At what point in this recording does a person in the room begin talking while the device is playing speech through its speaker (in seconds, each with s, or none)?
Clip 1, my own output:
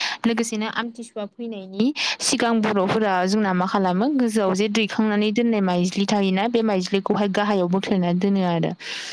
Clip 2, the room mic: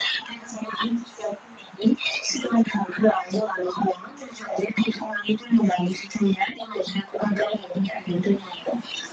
none